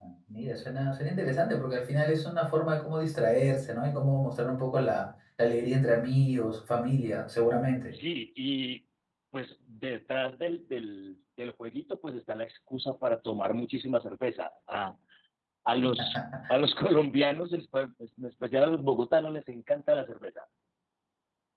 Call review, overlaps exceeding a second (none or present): none